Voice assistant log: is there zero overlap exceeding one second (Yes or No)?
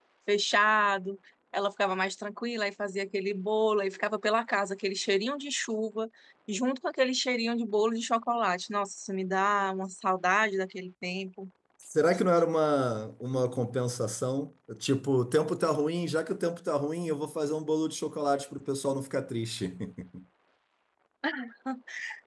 Yes